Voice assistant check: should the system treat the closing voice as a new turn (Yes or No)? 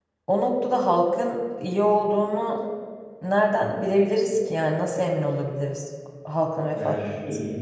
Yes